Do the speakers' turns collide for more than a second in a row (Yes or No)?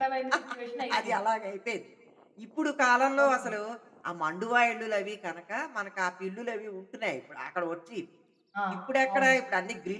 No